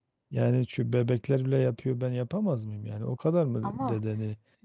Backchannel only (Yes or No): Yes